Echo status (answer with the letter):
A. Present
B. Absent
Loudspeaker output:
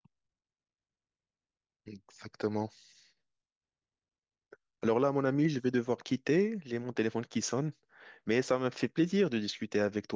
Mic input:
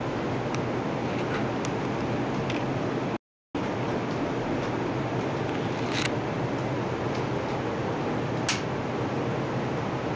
B